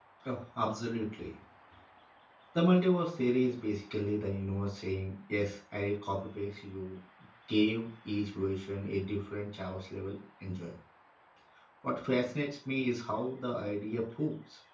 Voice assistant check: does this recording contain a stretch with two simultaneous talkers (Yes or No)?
No